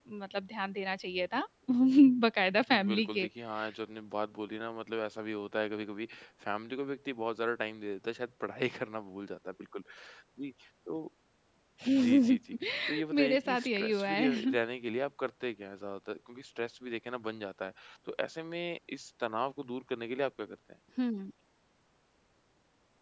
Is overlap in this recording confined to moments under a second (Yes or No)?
No